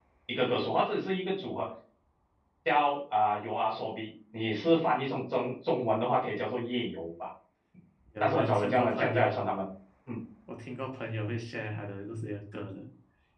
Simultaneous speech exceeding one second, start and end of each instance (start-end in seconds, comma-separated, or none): 8.2-9.4